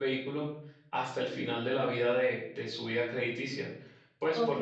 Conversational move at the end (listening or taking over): taking over